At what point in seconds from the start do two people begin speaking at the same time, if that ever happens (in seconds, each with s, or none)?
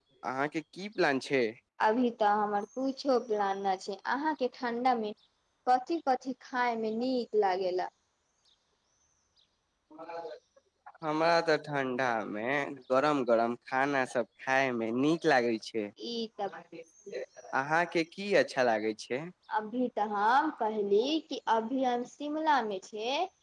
none